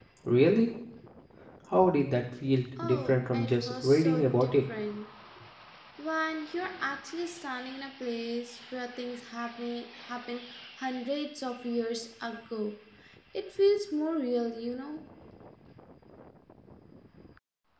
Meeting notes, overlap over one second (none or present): present